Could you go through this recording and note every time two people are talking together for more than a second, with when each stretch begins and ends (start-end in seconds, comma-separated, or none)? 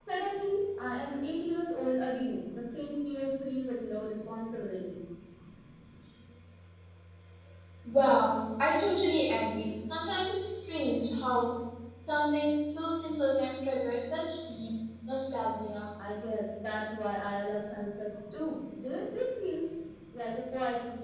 none